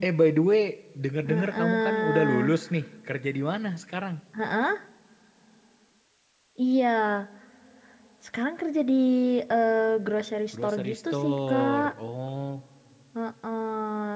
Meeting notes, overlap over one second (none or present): present